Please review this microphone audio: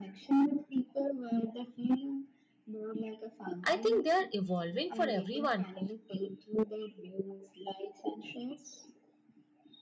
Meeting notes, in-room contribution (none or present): present